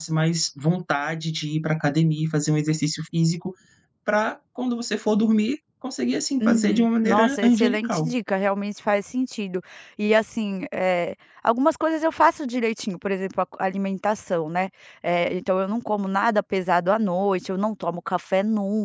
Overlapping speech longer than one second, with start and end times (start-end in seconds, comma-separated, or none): 6.4-8.1